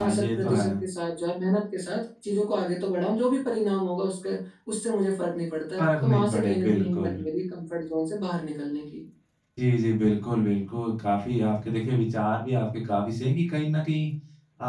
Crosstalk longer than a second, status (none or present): present